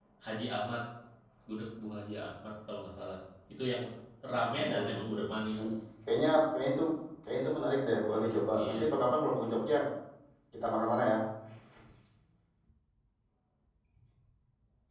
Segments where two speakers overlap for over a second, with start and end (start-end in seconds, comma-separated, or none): 4.5-5.8